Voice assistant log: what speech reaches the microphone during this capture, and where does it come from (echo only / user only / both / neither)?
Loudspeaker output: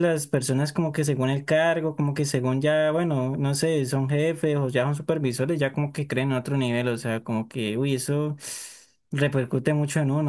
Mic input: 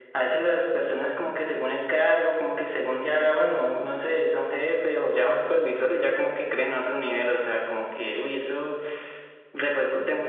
echo only